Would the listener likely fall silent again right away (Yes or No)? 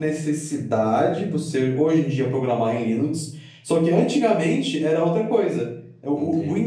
Yes